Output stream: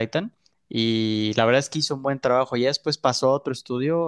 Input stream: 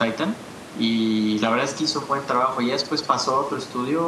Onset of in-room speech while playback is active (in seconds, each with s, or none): none